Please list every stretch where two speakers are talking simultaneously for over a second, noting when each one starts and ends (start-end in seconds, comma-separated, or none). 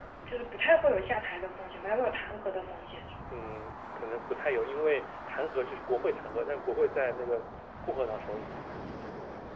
none